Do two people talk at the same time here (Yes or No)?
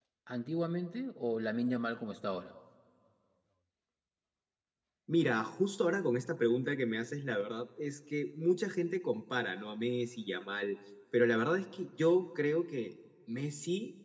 No